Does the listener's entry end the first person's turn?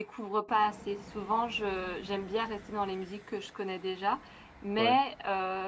No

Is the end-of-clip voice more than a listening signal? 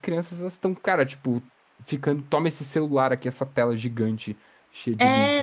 Yes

